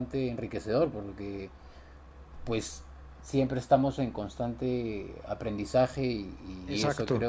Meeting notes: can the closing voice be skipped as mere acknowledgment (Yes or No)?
Yes